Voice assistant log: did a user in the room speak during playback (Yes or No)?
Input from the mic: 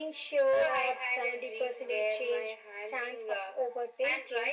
No